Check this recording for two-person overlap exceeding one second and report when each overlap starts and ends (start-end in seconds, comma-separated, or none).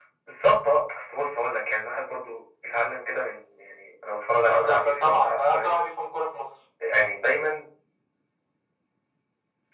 4.5-5.8